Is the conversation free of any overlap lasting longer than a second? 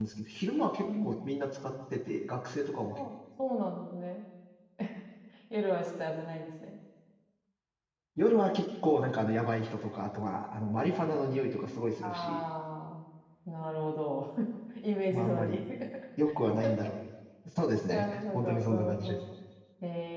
No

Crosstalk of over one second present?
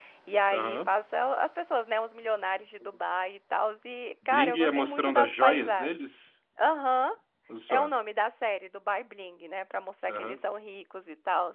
Yes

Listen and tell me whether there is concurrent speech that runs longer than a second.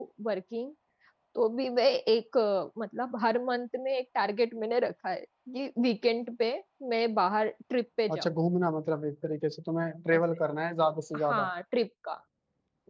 No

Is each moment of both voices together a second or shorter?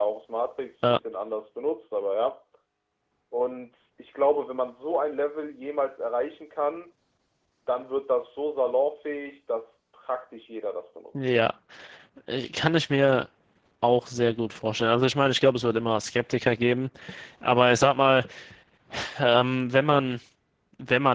Yes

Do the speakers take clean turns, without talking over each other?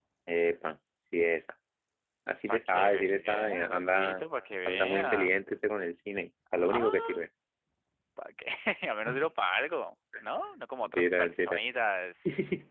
No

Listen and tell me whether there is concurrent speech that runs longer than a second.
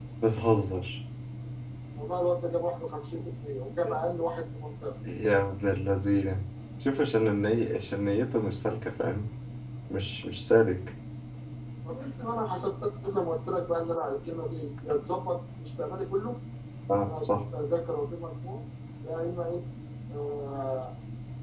No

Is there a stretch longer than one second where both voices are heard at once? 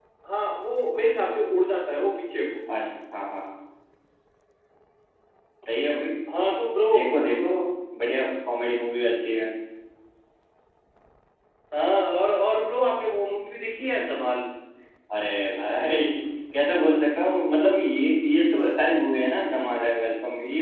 No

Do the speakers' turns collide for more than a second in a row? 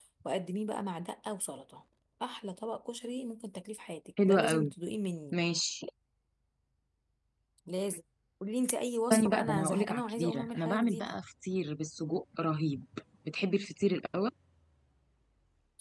Yes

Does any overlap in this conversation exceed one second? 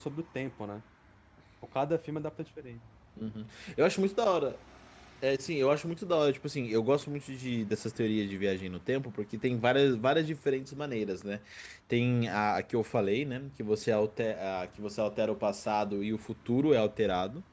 No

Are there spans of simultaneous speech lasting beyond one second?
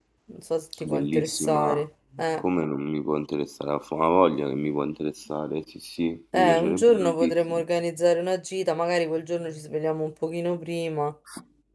Yes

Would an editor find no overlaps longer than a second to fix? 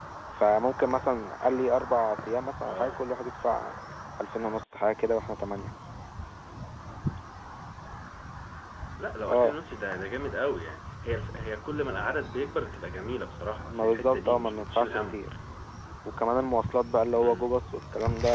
No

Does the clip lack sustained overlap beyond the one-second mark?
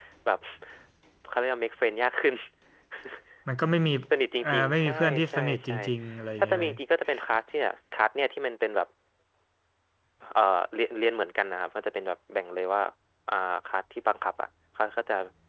No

